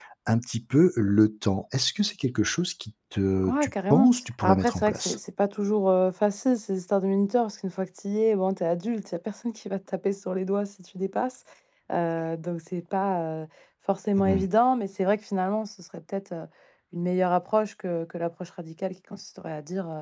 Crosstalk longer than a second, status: present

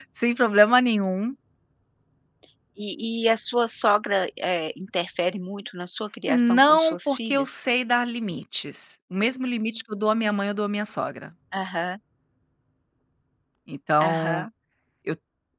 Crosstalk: present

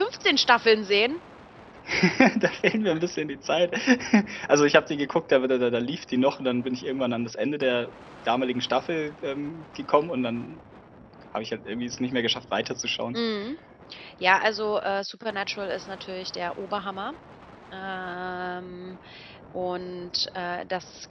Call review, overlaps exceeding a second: none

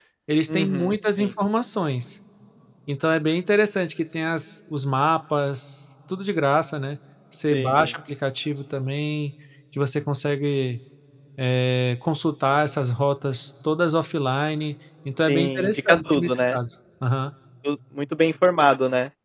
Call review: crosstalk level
present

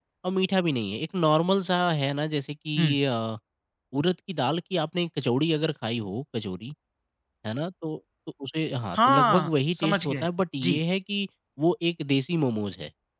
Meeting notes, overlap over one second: present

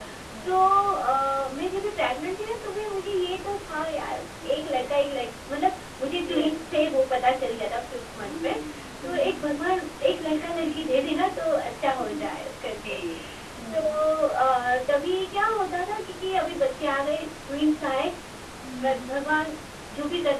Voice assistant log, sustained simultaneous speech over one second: none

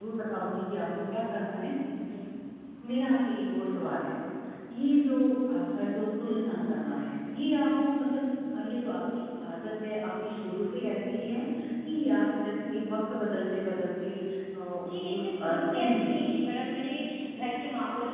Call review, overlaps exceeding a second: present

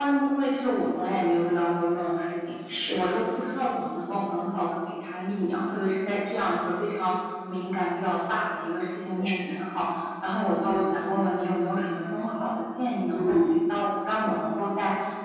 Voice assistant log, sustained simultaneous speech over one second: none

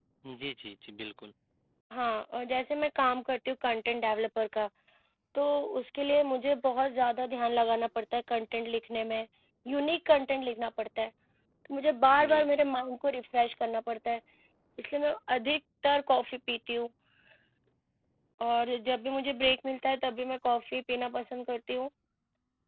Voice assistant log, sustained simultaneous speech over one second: none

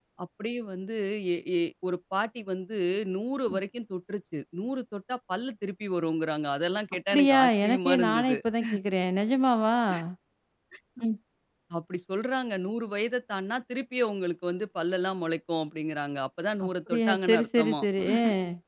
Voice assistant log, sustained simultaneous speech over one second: present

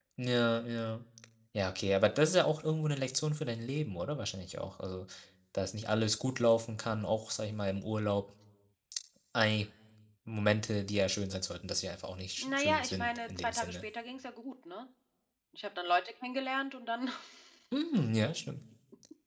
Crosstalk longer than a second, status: present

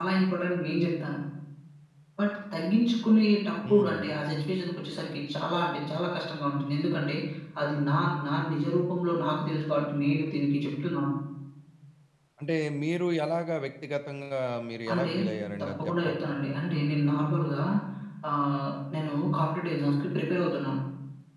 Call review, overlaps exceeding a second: none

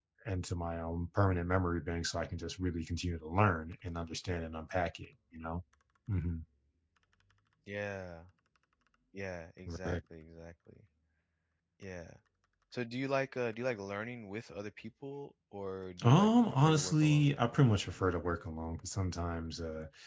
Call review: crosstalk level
present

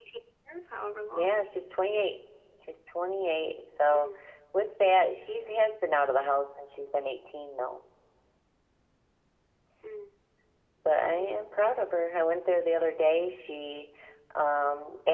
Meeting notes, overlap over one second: none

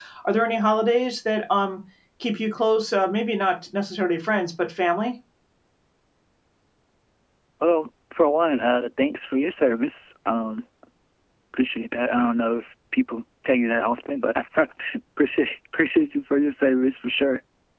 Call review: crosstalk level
none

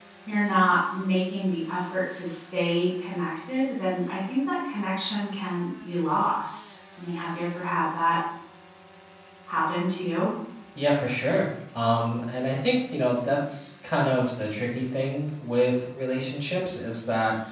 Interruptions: none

